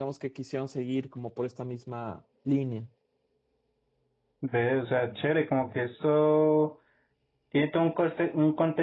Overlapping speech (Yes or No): No